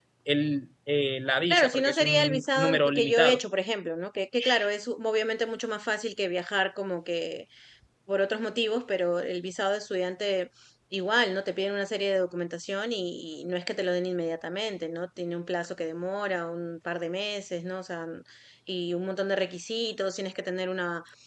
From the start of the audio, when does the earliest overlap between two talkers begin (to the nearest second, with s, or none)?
1 s